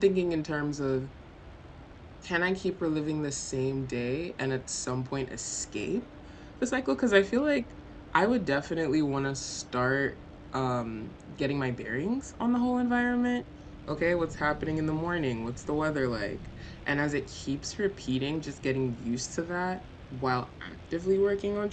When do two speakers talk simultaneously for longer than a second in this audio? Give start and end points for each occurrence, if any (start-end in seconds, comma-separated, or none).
none